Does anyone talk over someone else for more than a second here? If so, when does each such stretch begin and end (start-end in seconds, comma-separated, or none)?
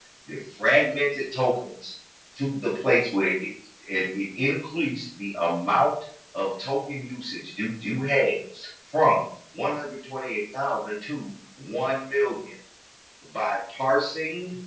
none